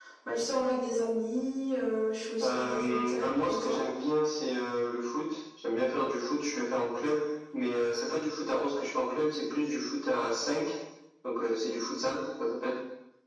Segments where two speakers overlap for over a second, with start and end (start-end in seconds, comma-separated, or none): 2.4-3.8